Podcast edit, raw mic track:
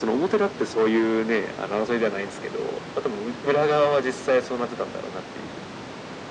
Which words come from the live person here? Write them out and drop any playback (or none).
none